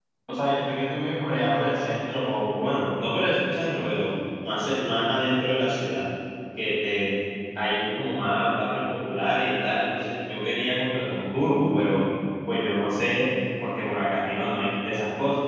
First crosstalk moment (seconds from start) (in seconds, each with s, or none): none